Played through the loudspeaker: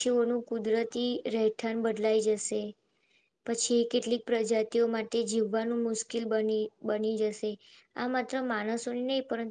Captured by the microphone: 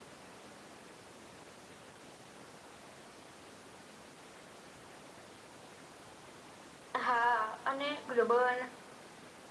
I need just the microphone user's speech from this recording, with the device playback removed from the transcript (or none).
હા અને ગ્લોબલ